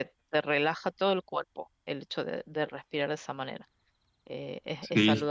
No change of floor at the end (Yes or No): No